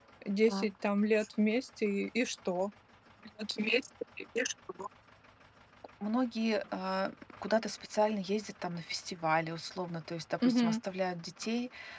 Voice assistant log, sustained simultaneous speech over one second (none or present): none